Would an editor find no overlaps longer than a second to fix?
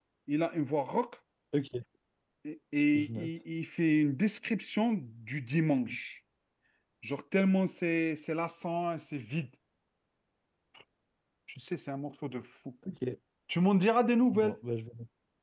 Yes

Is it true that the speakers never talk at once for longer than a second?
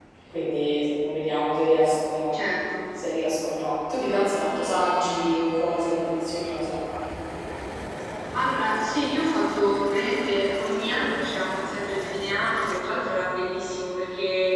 Yes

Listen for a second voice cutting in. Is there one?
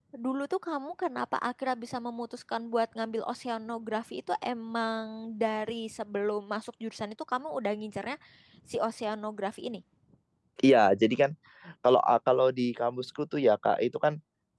No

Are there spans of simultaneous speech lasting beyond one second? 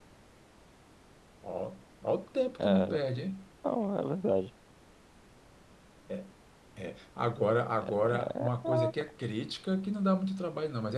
Yes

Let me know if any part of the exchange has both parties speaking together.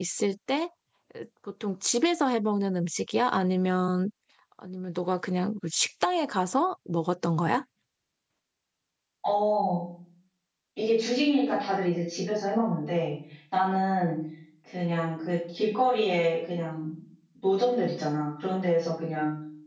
No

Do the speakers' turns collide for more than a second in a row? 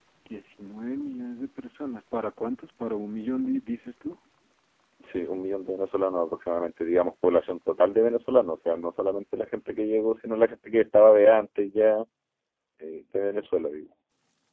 No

